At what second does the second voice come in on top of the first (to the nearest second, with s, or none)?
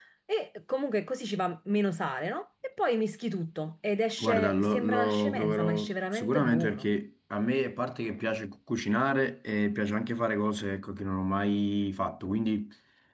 4 s